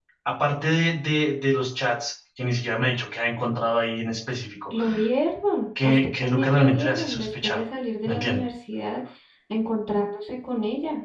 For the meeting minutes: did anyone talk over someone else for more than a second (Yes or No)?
Yes